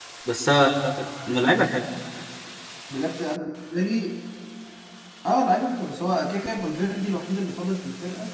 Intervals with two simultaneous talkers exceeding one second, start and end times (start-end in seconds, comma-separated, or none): none